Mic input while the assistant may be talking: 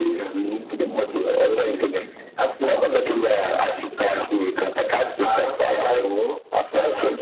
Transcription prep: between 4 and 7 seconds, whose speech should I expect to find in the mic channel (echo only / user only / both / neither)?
echo only